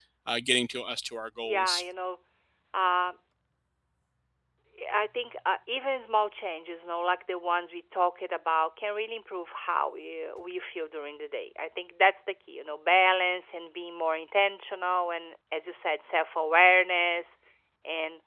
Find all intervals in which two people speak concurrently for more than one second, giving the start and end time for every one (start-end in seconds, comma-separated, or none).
none